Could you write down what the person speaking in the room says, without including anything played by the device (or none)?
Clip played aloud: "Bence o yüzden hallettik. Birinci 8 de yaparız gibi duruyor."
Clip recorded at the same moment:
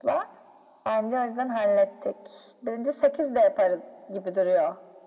none